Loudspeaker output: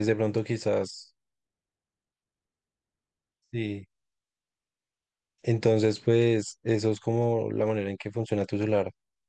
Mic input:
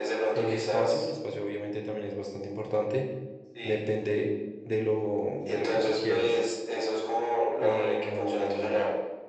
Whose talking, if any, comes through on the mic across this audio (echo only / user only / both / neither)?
both